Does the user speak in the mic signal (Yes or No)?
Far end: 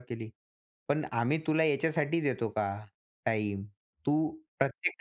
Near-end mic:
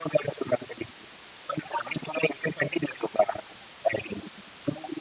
No